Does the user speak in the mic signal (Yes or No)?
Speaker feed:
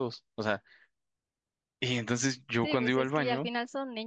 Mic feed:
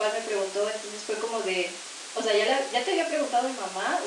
Yes